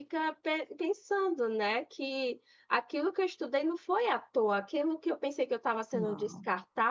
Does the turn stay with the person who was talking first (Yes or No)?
Yes